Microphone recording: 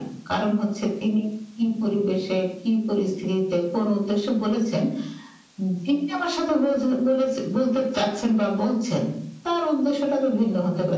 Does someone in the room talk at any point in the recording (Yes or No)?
No